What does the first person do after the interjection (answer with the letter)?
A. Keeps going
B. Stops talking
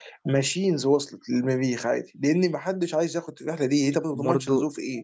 B